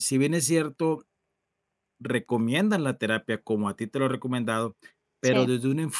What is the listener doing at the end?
listening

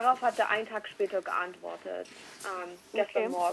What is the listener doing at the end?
listening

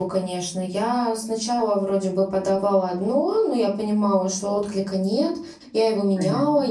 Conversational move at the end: listening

